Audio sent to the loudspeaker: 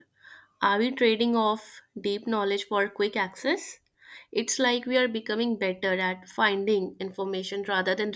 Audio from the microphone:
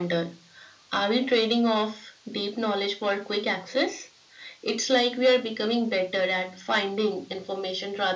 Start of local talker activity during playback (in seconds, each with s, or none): none